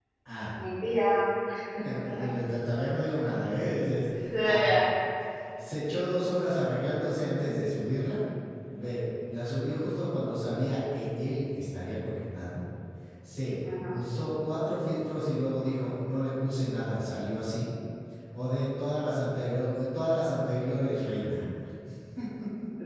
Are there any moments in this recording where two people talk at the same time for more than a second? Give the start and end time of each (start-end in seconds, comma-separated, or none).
none